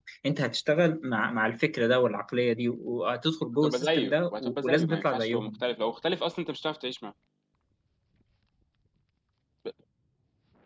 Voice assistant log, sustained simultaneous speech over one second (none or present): present